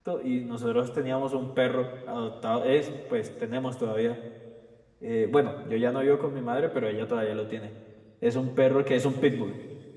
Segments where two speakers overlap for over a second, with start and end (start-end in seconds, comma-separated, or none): none